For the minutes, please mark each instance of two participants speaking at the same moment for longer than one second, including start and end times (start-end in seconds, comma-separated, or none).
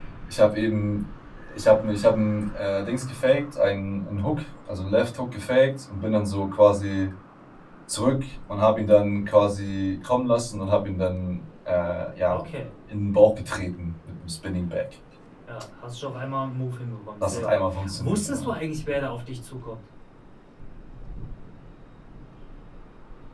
17.2-18.5